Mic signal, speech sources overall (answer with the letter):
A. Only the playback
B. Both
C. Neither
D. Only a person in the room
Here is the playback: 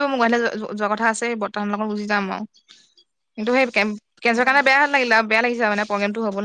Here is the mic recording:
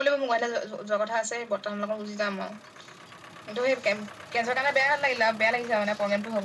A